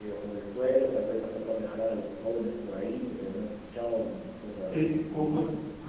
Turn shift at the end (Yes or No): Yes